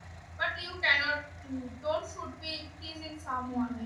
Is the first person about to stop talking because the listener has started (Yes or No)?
Yes